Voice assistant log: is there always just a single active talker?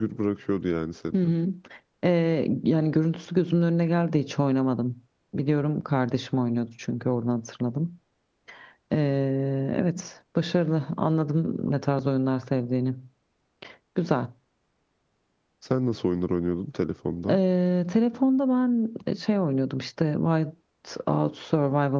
Yes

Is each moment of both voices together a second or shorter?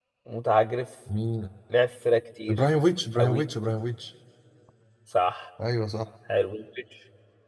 Yes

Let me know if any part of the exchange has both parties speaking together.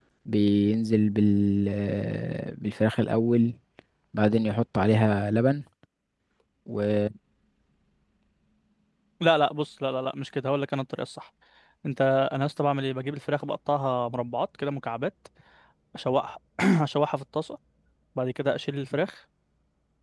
No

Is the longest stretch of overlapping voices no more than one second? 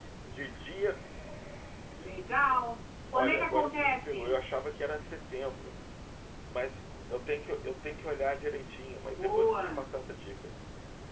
No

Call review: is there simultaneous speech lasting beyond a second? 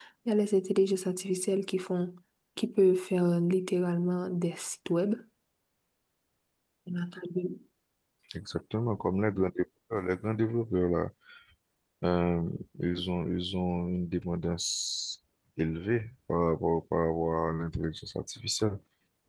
No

